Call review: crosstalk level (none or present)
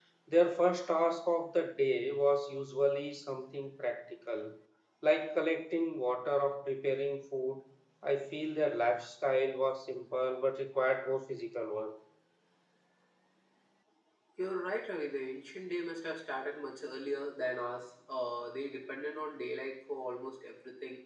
none